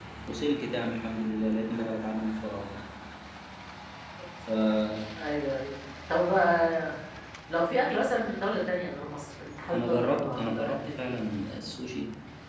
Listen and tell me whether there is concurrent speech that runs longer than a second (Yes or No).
Yes